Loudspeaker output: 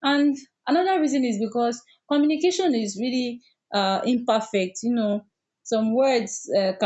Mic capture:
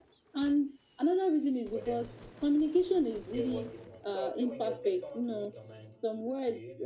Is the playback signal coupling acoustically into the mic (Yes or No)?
Yes